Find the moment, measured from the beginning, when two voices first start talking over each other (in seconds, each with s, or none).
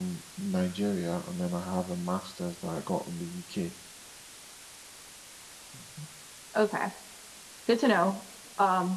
none